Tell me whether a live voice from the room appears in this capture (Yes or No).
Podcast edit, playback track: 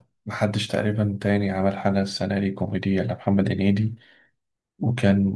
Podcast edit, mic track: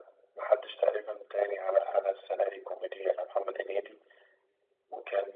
No